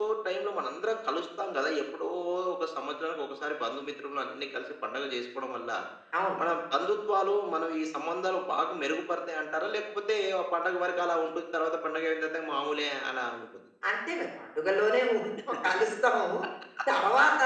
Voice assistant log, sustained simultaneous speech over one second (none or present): none